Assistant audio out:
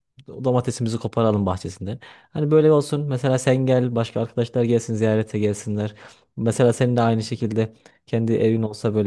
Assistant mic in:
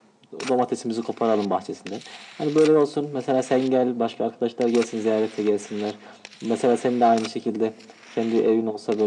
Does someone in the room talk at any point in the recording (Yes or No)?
No